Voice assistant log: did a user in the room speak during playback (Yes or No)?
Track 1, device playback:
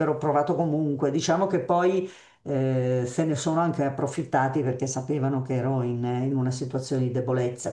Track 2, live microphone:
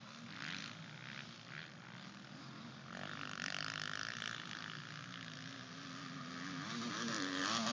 No